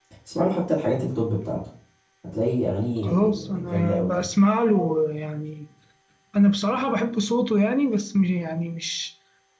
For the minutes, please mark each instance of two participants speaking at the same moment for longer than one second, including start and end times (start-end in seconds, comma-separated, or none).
3.0-4.2